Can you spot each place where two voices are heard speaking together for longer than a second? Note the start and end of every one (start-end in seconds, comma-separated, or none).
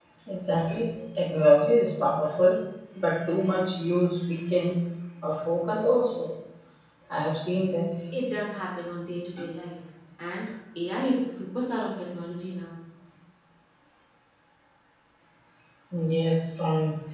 none